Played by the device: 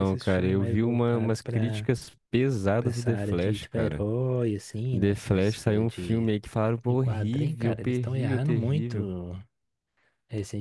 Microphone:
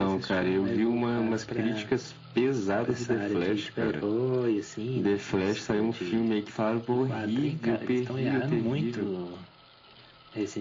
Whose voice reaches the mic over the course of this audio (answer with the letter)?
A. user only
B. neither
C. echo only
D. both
C